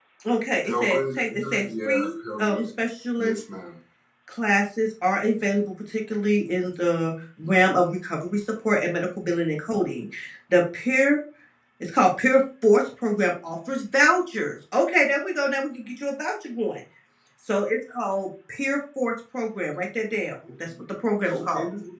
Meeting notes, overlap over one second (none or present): present